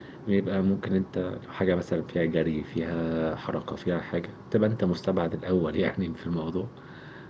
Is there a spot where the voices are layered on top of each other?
No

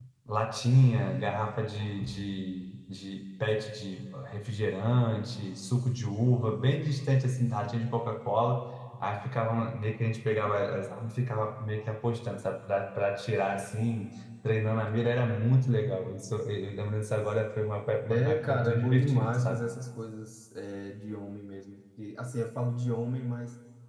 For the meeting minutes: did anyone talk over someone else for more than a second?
Yes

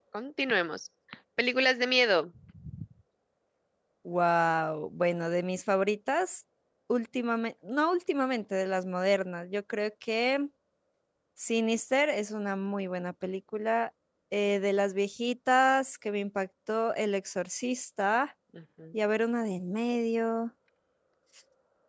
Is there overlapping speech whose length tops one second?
No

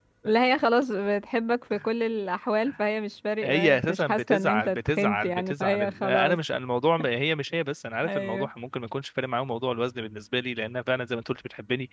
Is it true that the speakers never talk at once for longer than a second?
No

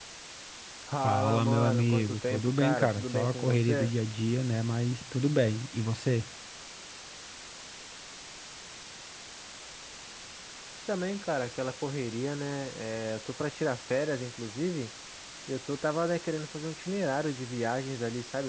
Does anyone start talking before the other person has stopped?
Yes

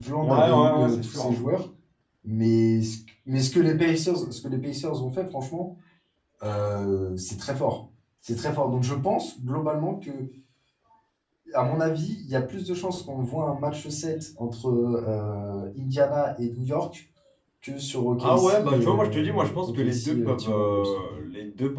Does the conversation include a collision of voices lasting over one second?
Yes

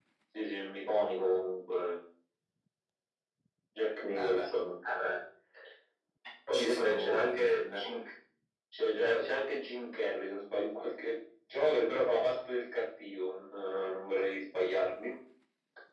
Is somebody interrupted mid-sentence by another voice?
Yes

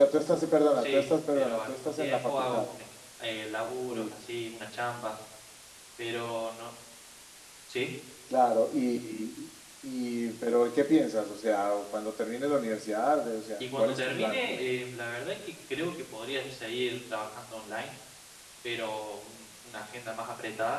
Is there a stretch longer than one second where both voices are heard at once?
Yes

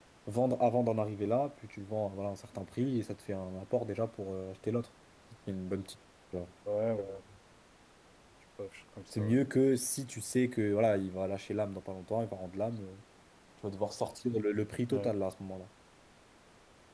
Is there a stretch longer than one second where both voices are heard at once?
No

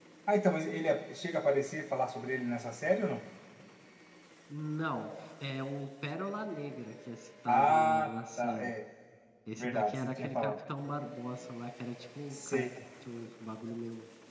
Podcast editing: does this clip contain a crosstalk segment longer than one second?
Yes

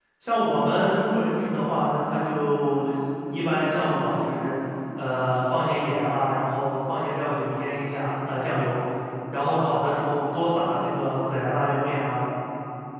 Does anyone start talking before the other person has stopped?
No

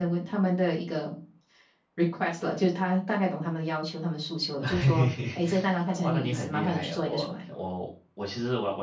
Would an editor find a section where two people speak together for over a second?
Yes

